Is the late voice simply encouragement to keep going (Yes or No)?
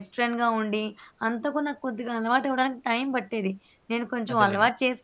Yes